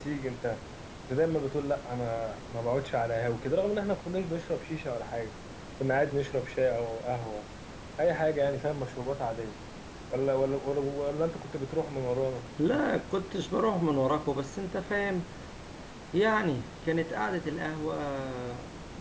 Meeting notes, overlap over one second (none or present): none